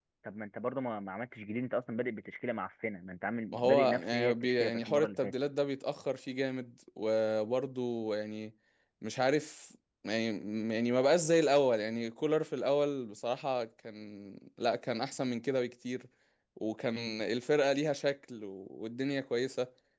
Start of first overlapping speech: 4 s

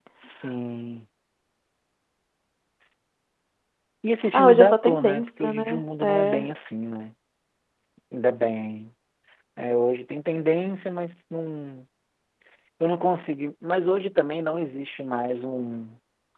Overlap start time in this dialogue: 4 s

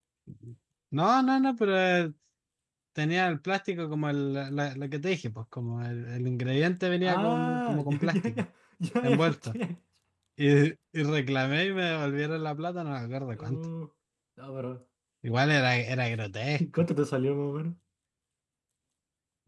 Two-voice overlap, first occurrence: 7 s

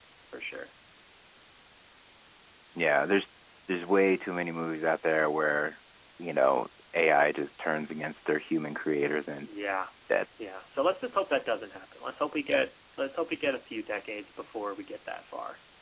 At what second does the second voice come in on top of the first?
none

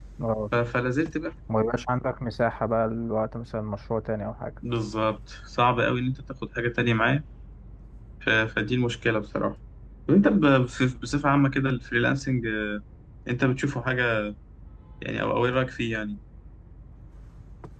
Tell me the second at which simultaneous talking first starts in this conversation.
none

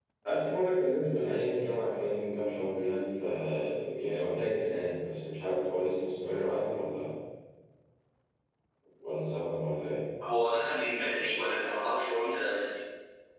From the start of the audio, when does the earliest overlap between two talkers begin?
none

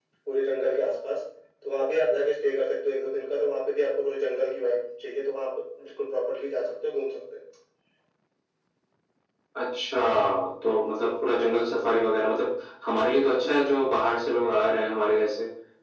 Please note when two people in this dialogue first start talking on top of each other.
none

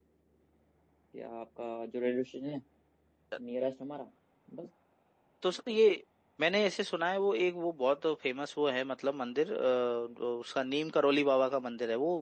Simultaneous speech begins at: none

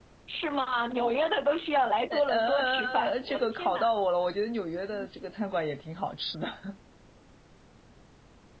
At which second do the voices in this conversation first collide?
2 s

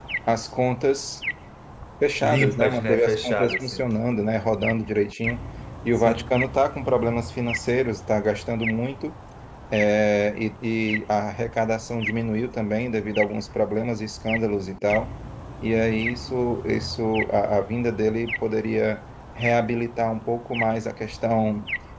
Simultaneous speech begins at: 2 s

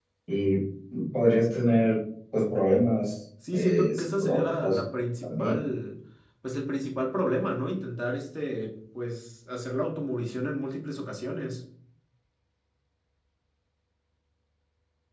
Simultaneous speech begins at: 3 s

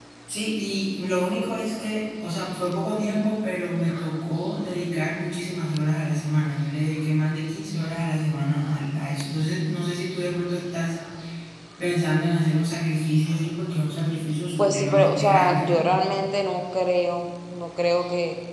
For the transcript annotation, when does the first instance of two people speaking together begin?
15 s

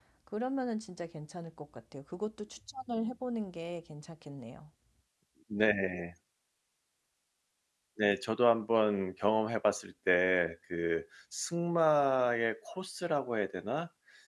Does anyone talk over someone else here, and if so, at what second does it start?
none

